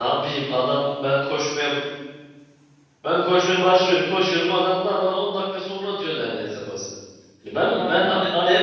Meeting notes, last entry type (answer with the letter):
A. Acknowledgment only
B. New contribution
B